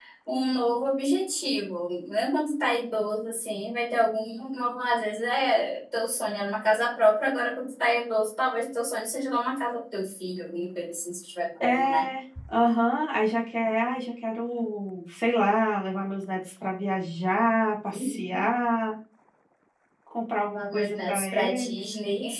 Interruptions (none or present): present